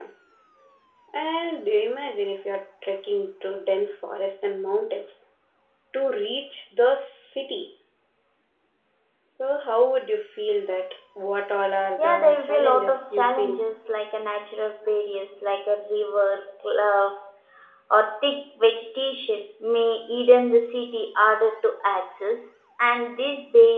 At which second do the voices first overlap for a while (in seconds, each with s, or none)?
12.0 s